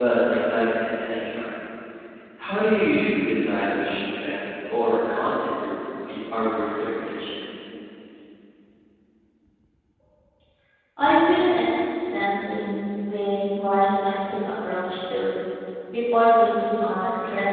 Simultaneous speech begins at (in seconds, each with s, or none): none